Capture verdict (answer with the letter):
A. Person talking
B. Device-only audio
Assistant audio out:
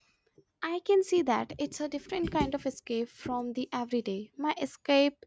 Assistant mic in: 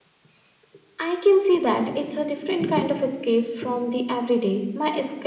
B